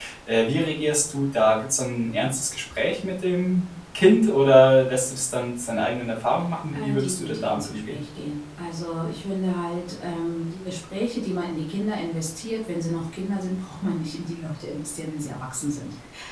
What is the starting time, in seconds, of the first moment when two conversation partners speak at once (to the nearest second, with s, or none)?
7 s